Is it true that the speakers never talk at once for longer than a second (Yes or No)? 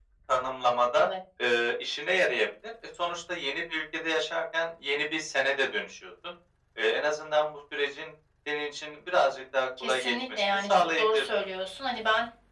No